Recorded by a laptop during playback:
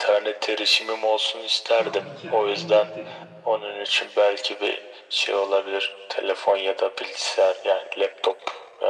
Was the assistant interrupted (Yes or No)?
Yes